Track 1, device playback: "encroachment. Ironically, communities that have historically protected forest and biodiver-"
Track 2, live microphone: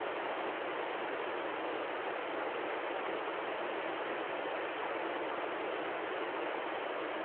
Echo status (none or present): none